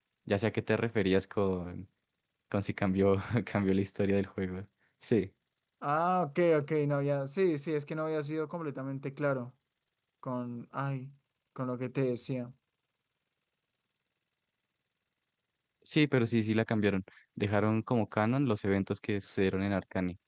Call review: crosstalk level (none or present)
none